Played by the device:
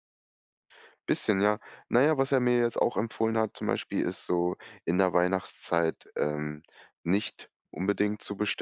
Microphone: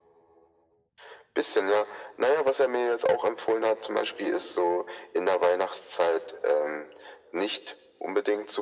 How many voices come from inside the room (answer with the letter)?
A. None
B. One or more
A